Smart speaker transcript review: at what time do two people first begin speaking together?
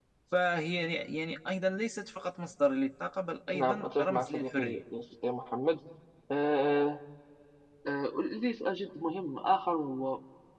4 s

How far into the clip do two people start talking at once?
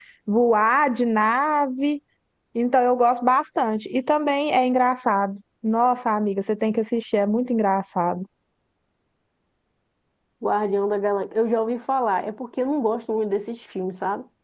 none

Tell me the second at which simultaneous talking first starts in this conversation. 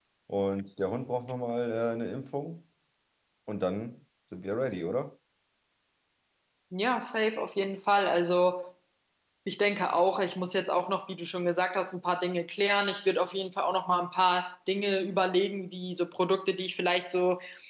none

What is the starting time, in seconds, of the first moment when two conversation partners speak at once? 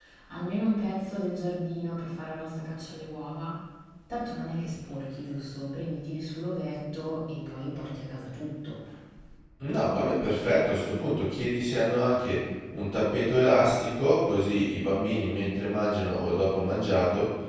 none

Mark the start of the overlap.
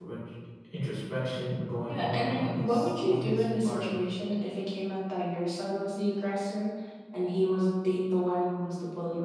2 s

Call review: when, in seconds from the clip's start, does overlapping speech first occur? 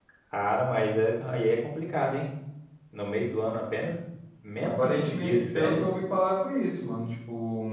5 s

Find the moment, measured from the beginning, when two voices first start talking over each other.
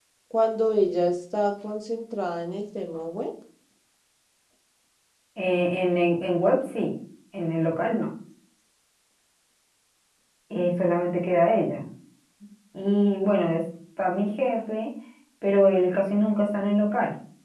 none

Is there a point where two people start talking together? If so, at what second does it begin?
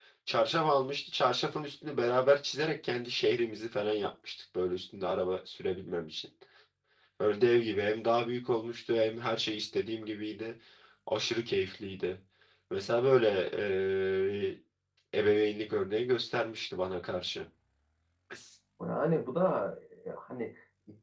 none

